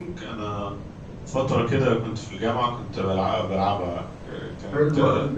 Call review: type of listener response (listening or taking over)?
taking over